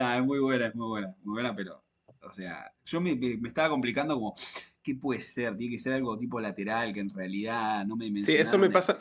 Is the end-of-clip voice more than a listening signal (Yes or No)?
Yes